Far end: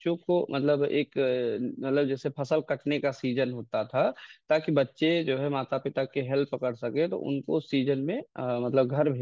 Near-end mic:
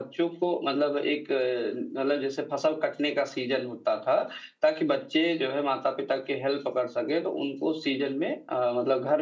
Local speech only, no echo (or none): none